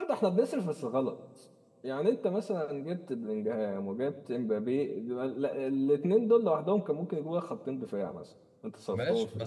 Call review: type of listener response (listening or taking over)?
taking over